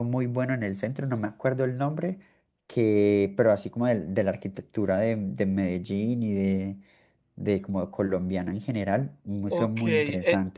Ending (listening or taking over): taking over